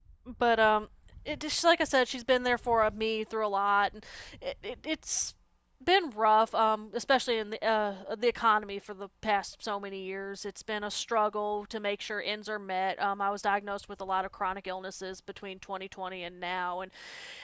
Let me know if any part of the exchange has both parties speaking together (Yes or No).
No